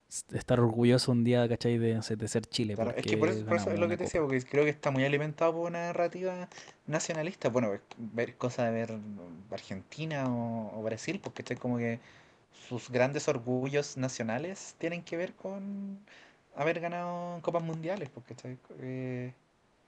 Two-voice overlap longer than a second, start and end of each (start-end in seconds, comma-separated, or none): 2.8-4.2